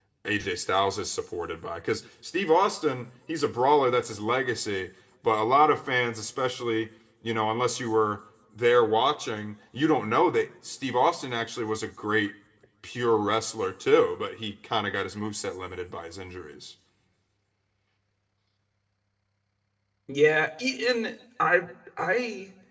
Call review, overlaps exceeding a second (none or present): none